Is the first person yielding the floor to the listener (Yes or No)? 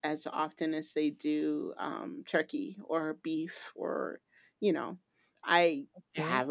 No